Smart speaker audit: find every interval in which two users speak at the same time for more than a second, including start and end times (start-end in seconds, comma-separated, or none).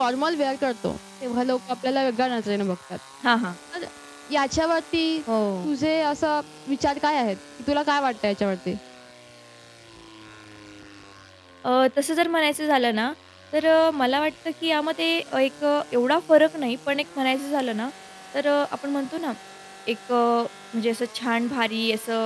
none